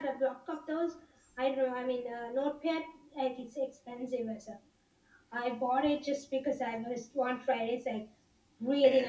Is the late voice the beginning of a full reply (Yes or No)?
No